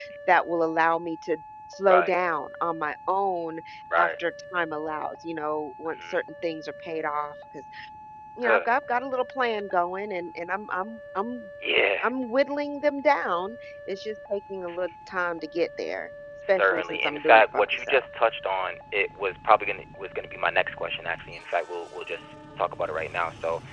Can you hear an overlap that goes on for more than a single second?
Yes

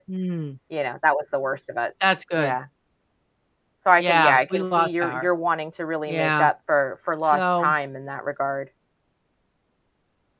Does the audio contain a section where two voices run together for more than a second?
Yes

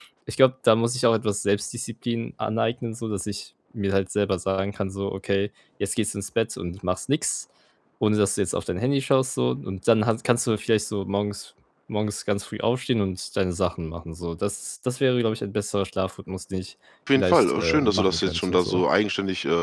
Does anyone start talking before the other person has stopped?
Yes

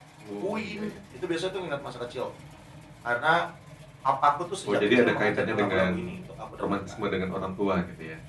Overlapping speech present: Yes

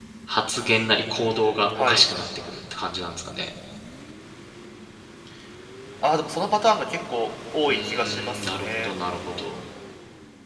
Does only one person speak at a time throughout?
No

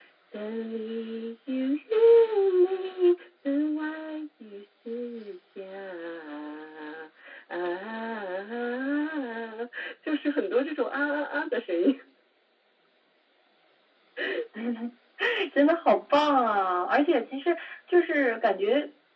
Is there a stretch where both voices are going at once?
No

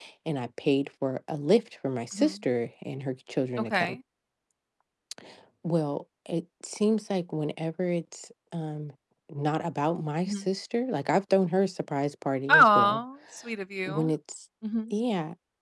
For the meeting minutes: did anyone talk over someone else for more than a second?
No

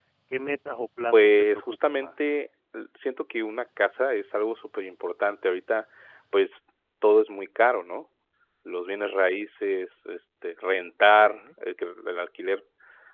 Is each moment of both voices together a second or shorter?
No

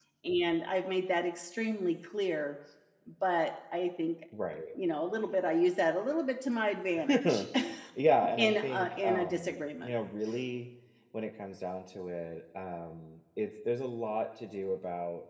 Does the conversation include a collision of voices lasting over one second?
Yes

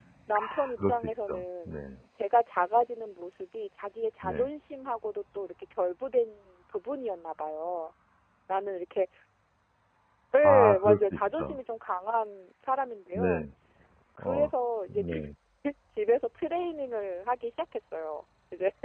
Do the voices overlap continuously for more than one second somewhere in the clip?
Yes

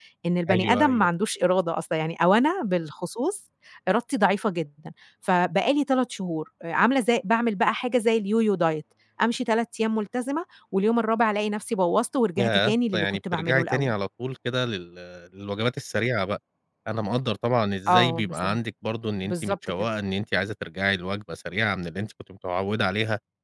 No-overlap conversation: No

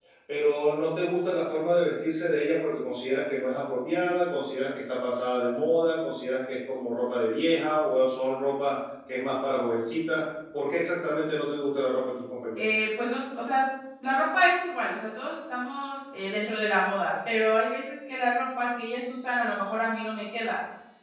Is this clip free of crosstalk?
Yes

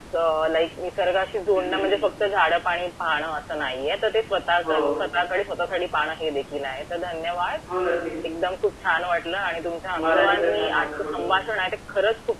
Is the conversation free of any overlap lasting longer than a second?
No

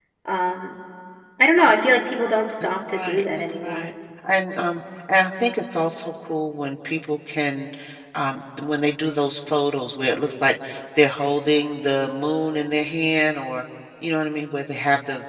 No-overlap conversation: No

